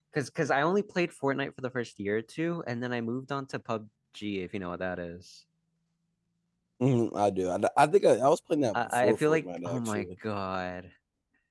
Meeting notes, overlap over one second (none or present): present